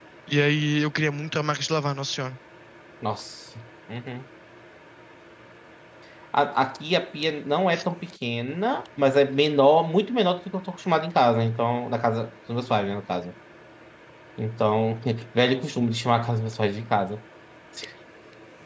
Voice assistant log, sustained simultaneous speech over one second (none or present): none